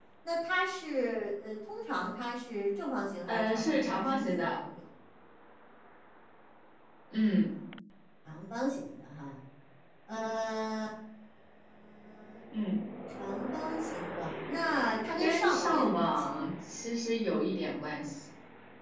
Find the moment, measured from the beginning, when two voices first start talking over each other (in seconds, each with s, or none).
3.3 s